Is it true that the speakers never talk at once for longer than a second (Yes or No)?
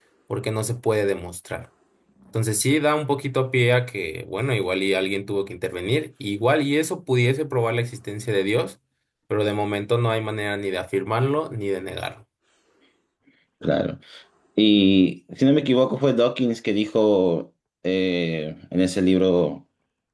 Yes